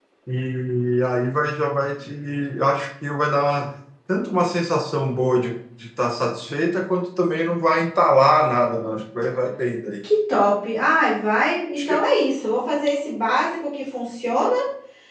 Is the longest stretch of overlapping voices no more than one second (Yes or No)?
Yes